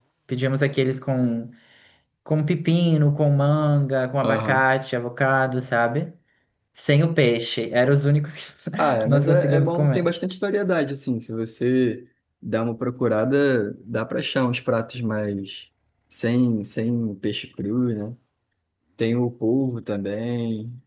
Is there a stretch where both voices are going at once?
Yes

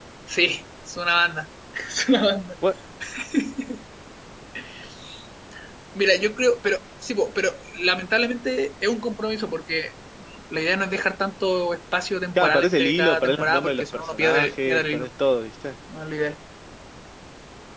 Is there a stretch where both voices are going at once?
Yes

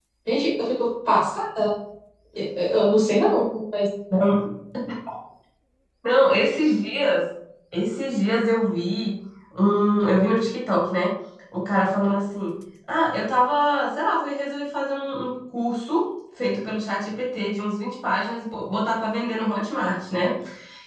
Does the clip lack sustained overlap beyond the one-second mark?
Yes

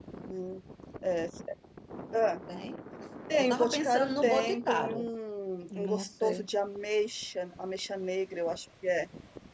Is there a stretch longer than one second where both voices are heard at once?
Yes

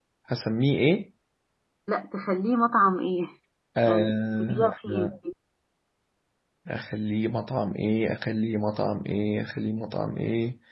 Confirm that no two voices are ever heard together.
No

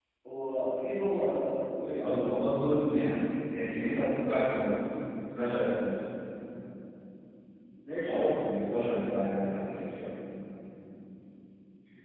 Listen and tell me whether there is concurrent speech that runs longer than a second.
No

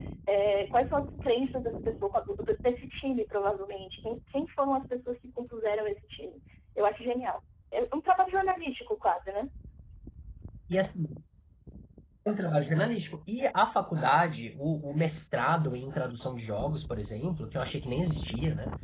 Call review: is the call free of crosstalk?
Yes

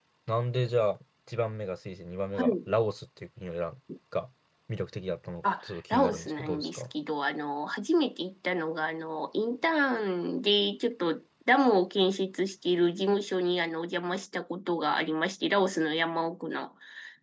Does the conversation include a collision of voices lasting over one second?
Yes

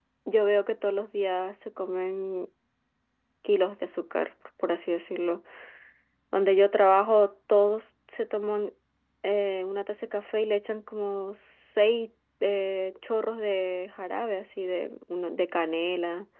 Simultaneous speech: No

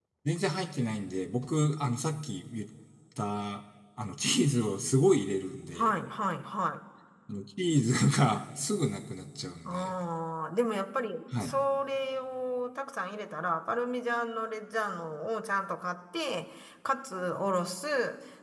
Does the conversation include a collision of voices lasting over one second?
No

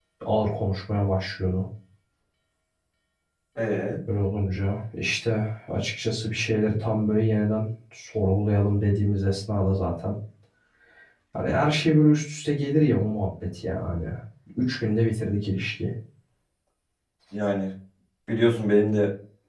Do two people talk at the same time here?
No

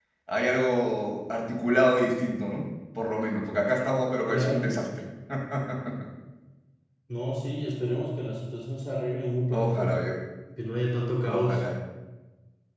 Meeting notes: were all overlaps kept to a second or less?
Yes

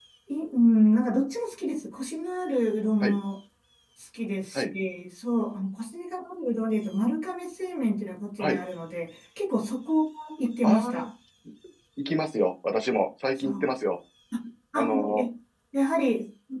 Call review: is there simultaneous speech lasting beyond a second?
No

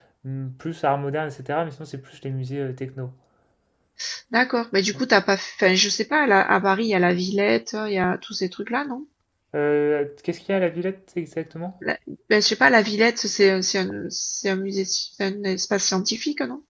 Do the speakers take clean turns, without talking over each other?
Yes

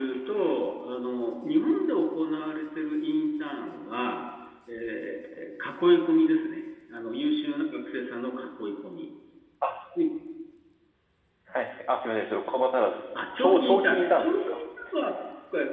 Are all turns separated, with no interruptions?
No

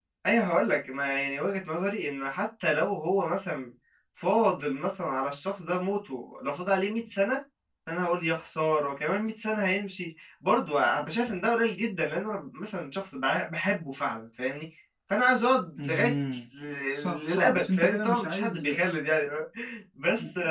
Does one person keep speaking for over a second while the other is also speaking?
Yes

